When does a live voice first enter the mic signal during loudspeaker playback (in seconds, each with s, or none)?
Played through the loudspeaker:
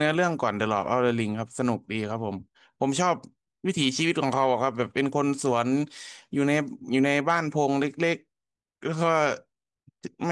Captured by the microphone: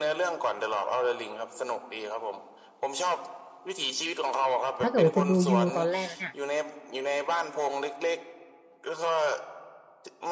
4.8 s